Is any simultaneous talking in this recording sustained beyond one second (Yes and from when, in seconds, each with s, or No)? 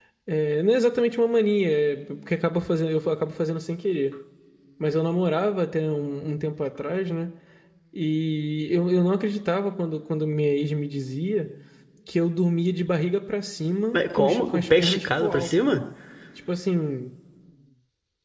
Yes, from 13.9 s